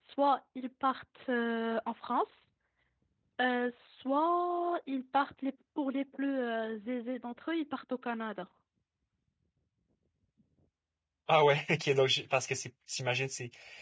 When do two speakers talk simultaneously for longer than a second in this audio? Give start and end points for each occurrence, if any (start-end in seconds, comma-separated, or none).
none